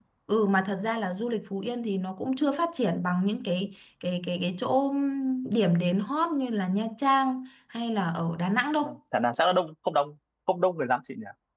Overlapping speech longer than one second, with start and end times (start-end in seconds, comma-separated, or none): none